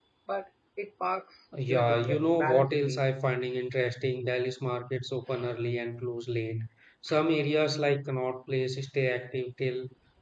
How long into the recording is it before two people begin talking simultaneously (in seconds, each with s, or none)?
1.5 s